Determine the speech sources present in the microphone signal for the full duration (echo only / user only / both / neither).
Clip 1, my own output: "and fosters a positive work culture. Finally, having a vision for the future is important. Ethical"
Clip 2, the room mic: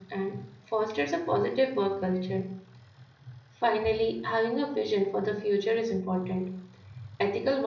echo only